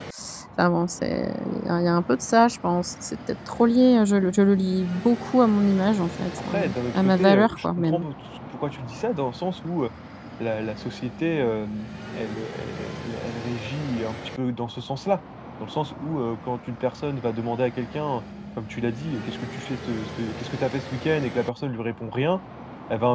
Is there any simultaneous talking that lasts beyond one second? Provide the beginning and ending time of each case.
6.4-8.1

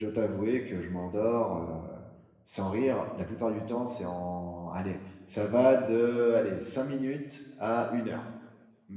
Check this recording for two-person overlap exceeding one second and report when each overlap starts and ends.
none

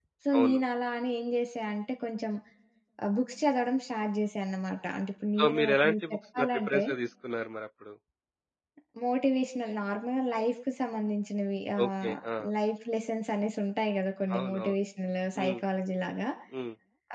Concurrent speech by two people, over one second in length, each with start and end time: 5.4-6.8

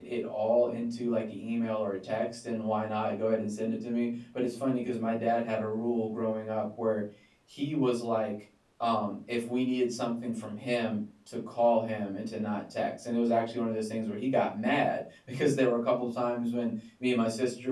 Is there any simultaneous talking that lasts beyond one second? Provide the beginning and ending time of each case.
none

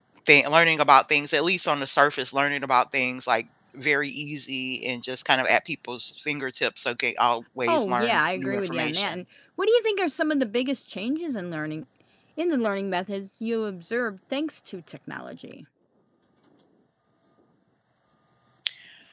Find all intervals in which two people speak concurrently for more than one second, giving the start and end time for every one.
7.7-9.2

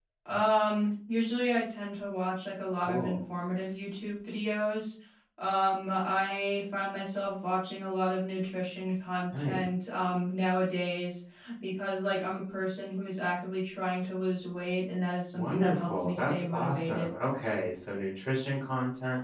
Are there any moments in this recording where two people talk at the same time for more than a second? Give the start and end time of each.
15.3-17.1

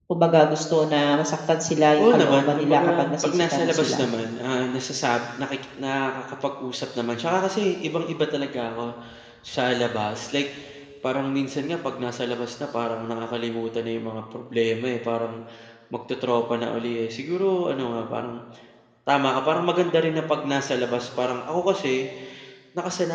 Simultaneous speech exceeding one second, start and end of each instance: 2.0-4.1

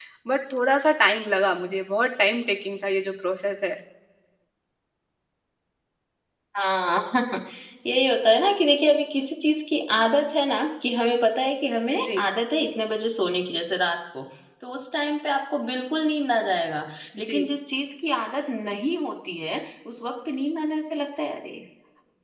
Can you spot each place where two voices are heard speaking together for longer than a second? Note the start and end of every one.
none

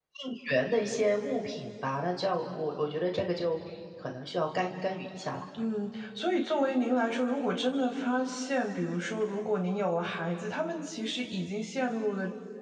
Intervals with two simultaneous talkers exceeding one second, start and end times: none

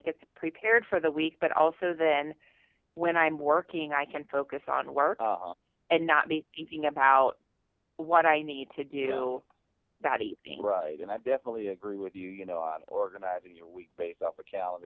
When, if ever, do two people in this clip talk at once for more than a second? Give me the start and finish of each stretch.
none

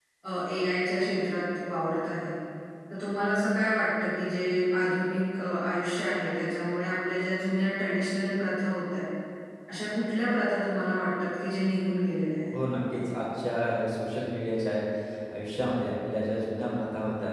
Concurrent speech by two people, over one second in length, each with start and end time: none

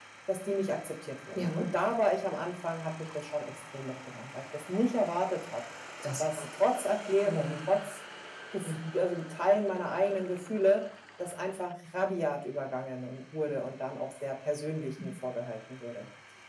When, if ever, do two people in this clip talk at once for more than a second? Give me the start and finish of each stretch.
none

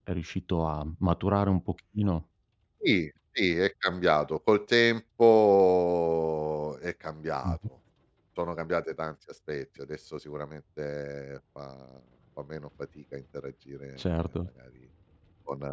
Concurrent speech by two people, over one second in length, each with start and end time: none

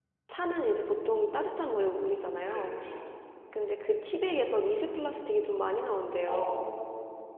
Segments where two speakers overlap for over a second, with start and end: none

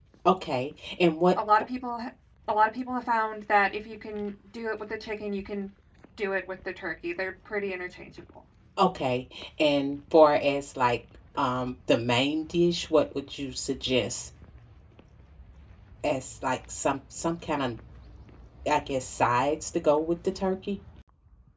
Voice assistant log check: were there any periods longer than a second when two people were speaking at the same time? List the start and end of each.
none

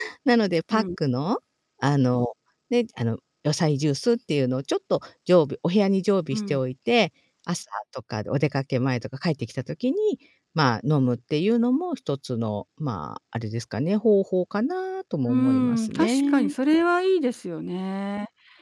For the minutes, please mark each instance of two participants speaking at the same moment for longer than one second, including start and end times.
15.3-16.5

